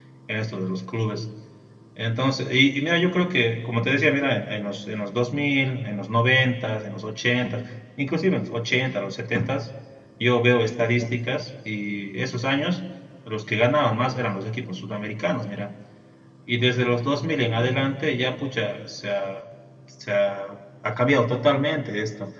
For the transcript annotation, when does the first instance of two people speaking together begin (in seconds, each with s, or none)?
none